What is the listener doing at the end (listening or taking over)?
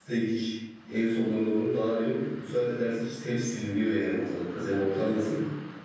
taking over